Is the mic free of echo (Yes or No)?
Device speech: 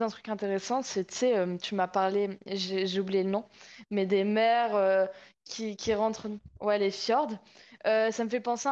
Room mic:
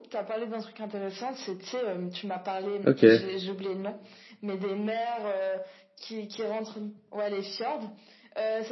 No